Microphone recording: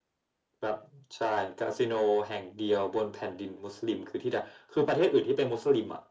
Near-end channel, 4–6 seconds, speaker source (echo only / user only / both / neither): echo only